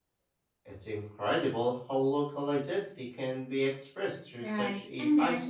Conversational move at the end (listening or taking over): taking over